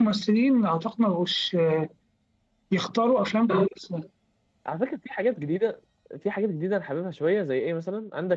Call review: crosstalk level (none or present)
none